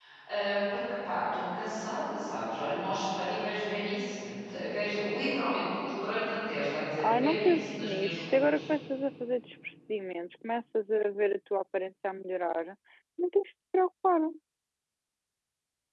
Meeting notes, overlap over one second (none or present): present